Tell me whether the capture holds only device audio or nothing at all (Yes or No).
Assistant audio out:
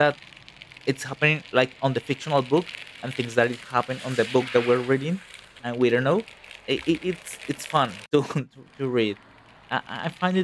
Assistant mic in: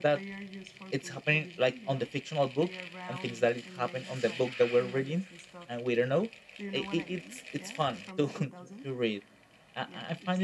No